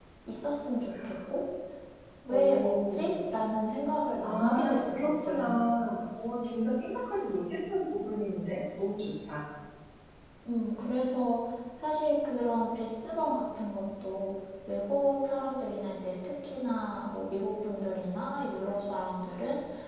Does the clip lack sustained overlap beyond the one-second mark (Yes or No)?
No